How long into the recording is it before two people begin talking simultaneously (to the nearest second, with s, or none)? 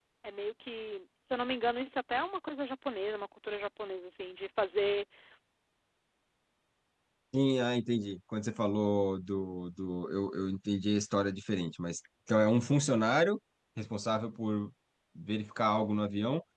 none